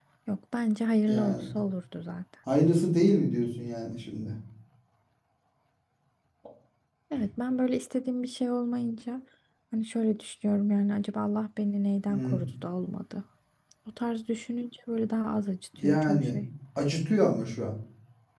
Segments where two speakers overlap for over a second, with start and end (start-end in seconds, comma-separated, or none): none